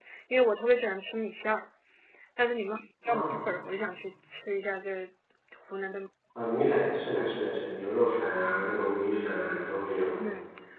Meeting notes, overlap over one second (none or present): none